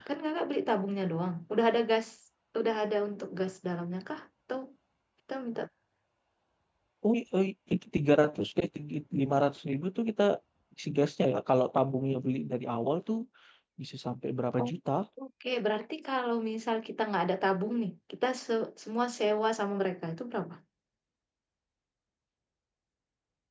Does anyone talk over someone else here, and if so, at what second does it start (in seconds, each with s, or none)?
none